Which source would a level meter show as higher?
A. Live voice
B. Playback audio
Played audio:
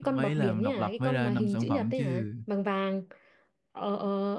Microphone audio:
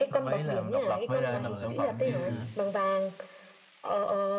B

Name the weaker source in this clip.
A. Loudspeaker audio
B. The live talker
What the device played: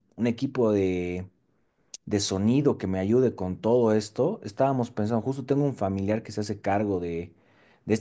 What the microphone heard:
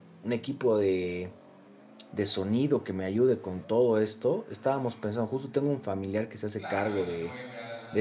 B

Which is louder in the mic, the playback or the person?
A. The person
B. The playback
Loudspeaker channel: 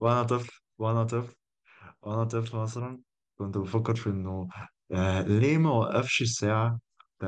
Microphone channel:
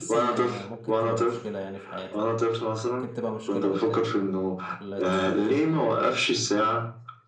B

